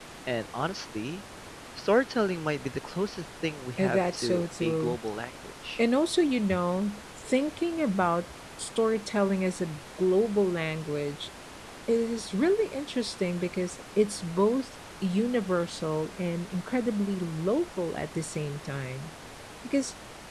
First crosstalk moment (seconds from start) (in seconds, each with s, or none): 3.8 s